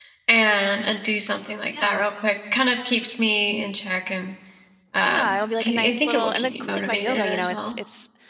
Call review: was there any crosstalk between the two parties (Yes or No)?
Yes